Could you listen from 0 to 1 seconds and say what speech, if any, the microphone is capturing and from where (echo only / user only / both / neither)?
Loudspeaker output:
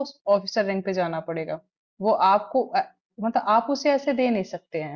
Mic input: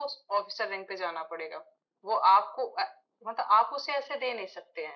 echo only